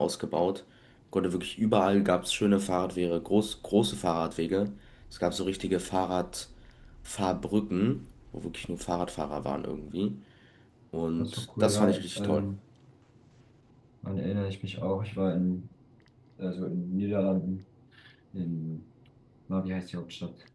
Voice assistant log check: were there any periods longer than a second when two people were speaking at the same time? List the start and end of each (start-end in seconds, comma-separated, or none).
11.2-12.5